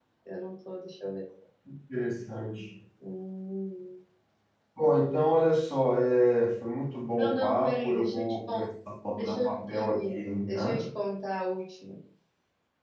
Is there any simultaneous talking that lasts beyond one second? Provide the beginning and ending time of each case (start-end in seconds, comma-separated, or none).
7.2-8.7, 9.2-10.8